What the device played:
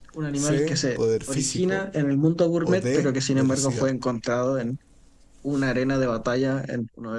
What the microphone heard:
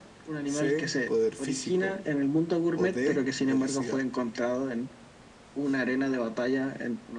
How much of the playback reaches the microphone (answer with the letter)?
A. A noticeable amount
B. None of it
A